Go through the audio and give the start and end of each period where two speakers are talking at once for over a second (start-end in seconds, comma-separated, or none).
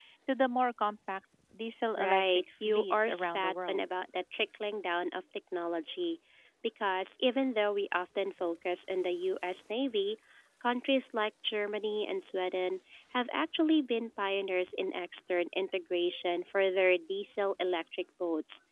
2.0-3.8